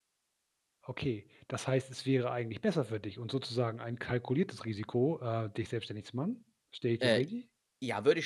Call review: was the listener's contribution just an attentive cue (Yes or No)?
No